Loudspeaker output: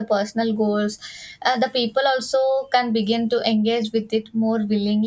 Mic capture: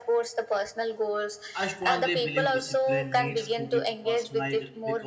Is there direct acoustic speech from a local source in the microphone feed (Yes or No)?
Yes